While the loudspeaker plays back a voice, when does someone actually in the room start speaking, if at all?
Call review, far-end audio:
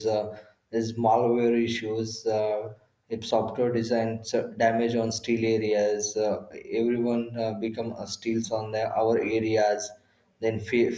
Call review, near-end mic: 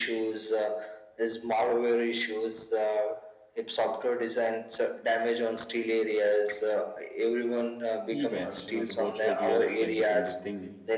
8 s

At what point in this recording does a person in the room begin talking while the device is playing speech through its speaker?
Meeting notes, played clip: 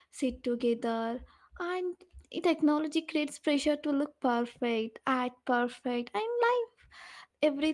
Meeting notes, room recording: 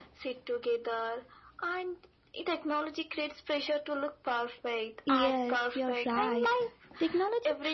5 s

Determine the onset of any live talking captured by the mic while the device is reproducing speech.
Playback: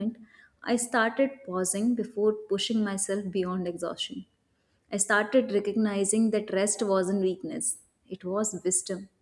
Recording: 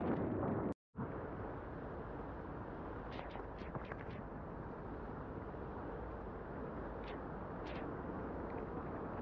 none

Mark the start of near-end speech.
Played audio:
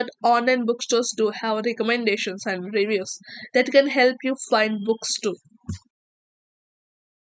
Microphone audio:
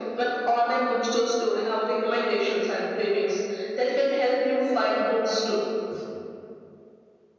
none

